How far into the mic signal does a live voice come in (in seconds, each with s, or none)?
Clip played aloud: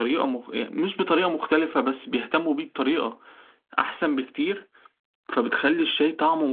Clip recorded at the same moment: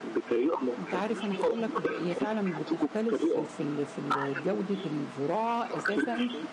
0.8 s